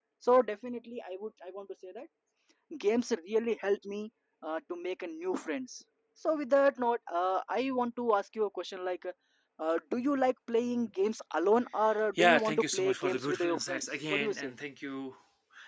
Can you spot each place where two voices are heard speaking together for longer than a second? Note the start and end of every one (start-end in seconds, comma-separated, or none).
12.2-14.5